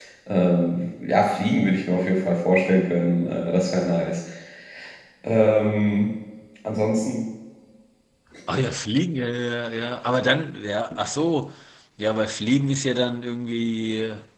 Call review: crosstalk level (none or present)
none